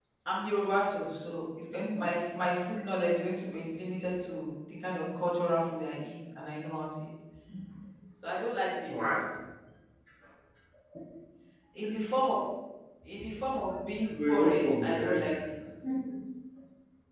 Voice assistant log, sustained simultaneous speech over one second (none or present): present